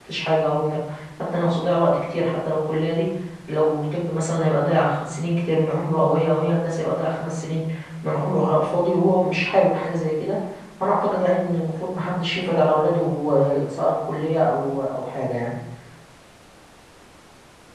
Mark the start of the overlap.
none

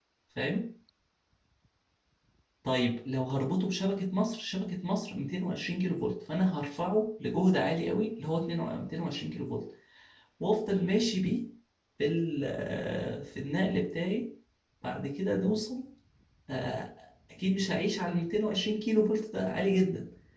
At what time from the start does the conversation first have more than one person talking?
none

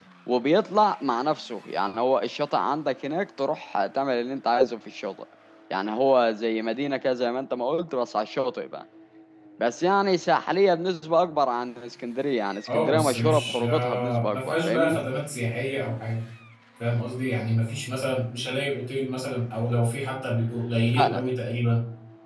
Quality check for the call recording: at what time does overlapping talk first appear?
13 s

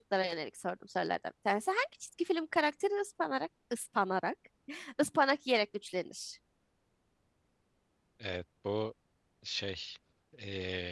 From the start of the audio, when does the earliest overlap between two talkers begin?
none

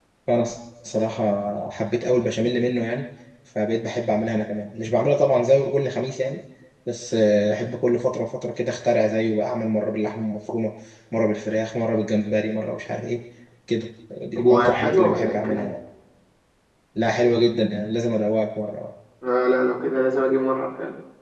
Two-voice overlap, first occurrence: 14 s

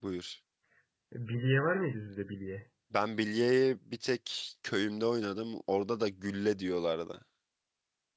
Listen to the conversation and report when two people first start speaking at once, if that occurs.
none

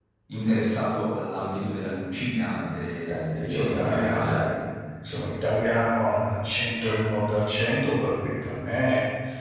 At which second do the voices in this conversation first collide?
3 s

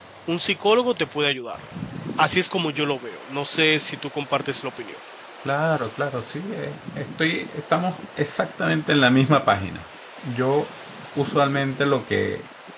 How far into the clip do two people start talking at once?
none

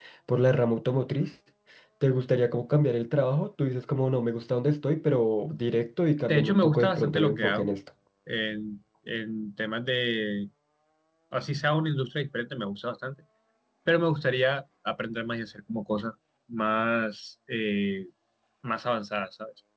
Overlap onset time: 6 s

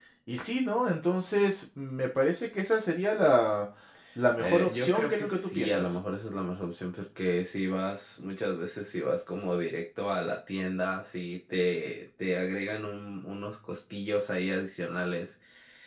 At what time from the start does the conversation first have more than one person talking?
4 s

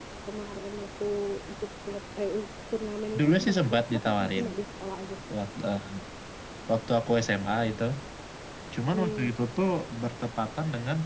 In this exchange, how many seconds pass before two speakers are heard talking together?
3 s

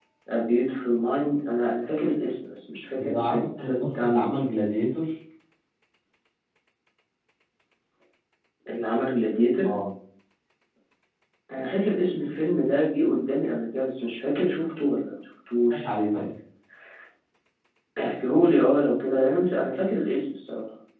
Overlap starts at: 3 s

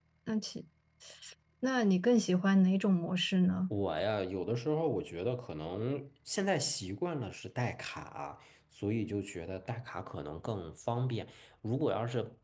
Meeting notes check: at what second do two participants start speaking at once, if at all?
none

